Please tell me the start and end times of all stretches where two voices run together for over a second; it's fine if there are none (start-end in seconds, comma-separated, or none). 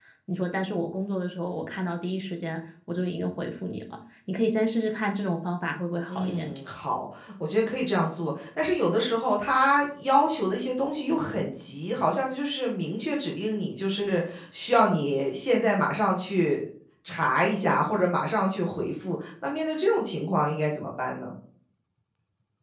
none